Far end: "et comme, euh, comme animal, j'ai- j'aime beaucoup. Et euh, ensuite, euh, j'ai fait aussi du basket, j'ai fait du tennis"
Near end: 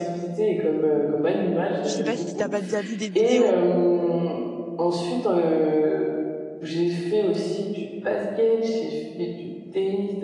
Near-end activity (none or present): present